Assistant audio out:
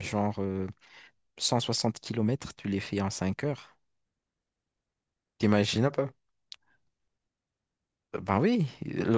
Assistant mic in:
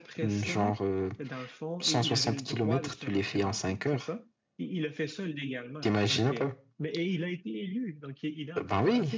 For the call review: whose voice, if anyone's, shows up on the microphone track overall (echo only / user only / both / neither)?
both